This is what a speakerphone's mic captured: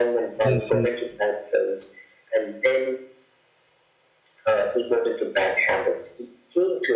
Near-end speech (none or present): present